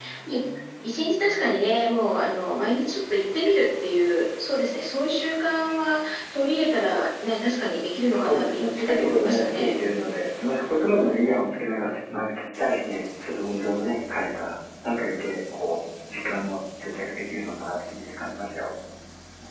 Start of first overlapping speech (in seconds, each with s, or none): 8.1 s